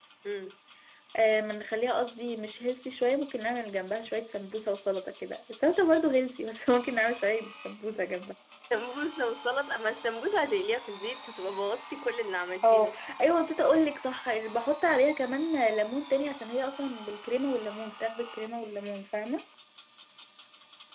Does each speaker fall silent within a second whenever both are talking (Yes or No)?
Yes